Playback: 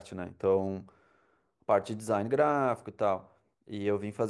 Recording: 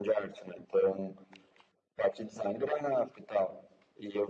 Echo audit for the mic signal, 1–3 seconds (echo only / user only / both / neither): echo only